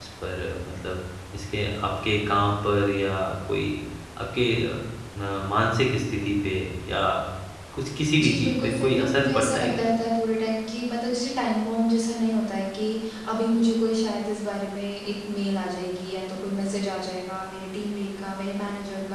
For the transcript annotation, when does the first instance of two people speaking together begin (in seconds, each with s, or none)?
8.2 s